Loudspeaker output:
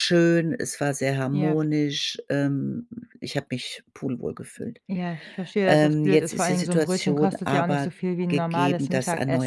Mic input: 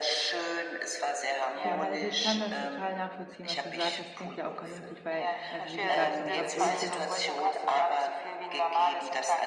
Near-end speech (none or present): present